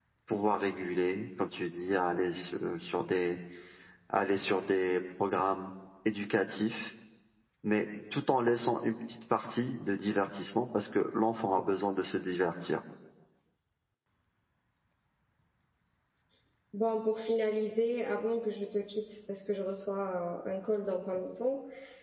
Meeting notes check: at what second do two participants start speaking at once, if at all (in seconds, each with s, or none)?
none